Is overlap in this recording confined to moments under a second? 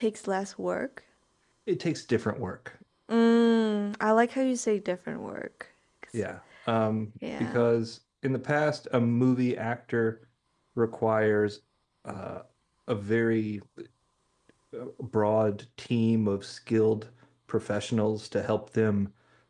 Yes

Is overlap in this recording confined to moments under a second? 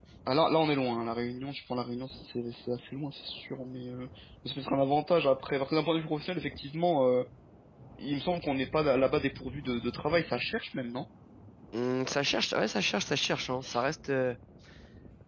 Yes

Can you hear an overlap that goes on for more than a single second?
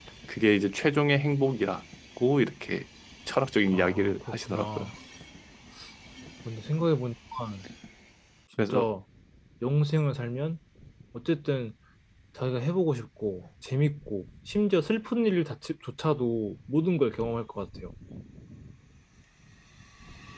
Yes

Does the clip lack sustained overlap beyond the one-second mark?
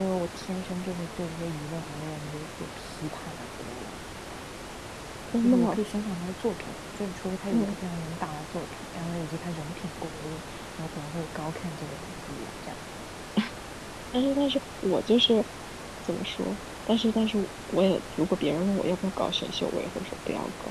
Yes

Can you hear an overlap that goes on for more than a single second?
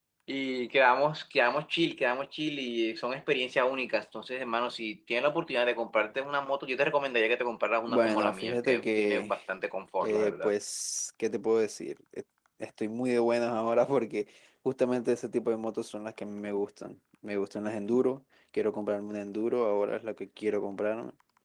Yes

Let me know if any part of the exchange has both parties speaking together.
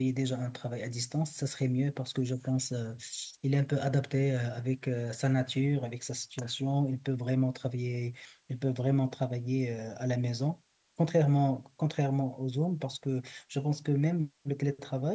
No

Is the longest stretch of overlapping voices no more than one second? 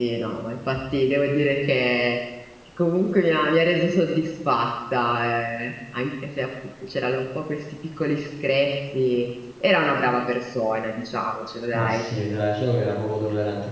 Yes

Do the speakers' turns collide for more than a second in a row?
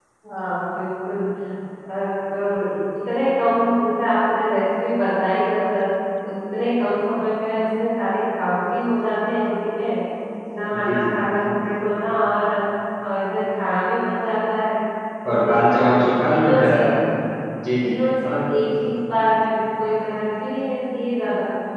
Yes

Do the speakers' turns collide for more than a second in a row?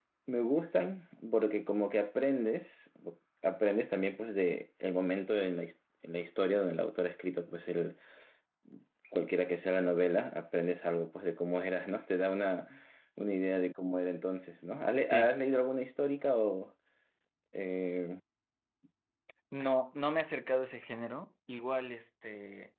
No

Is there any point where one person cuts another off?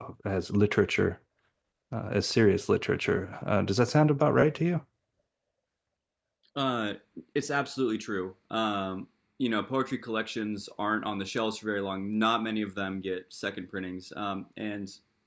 No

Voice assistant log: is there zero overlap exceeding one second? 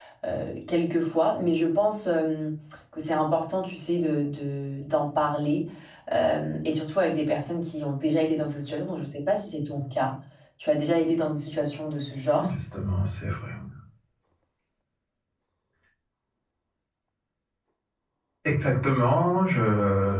Yes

